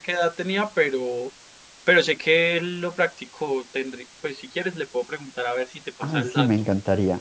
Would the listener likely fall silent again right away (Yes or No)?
No